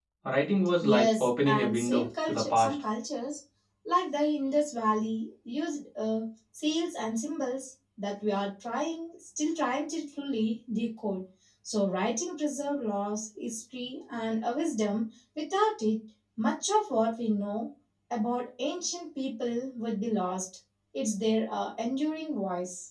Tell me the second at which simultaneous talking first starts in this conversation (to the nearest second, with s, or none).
1 s